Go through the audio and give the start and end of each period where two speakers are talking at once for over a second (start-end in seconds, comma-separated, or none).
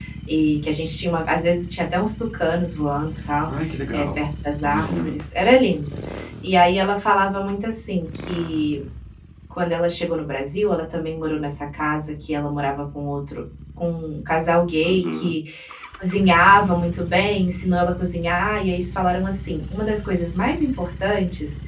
none